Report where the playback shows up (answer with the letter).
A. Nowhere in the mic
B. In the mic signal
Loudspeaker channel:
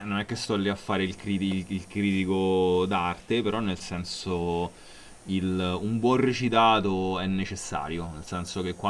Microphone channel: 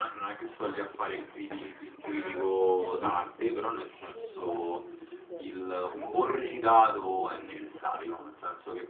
B